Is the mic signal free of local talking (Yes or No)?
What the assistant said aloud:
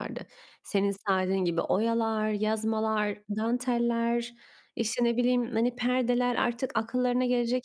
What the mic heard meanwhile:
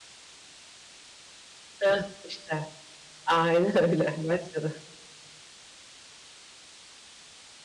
No